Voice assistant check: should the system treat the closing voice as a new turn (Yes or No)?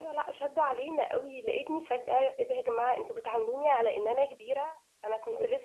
No